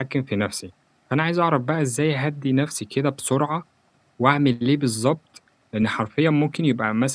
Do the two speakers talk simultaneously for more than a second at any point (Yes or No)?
No